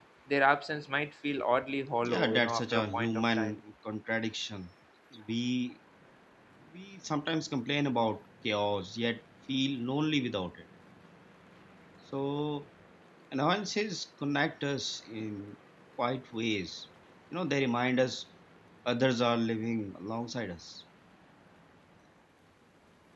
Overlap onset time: 2.0 s

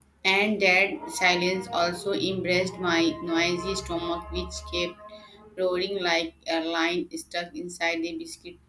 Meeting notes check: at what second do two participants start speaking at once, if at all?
none

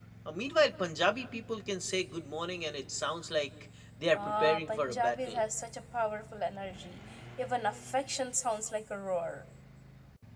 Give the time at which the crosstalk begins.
4.1 s

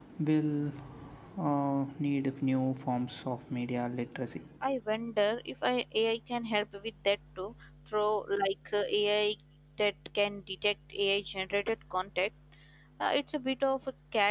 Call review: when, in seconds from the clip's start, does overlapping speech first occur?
none

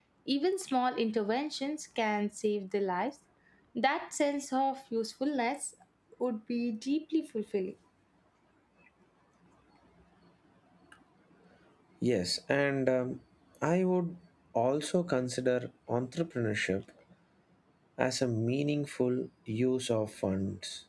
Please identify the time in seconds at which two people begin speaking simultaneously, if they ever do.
none

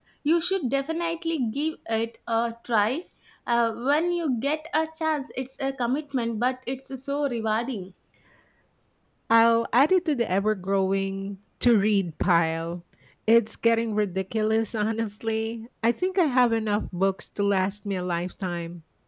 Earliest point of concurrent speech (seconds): none

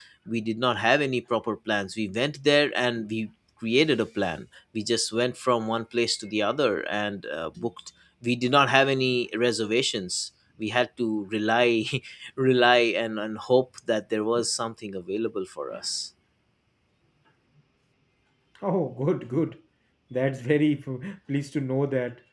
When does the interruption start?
none

